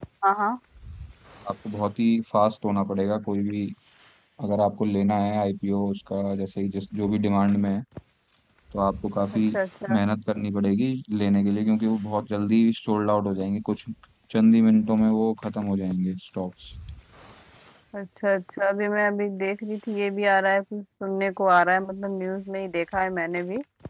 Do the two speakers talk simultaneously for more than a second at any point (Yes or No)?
No